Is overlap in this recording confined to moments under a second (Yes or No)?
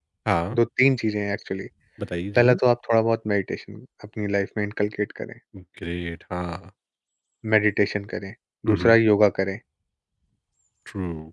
Yes